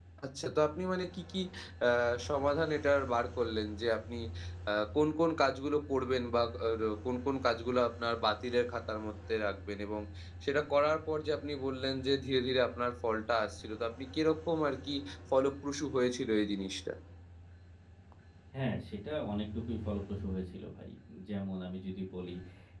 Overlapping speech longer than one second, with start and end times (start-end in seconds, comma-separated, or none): none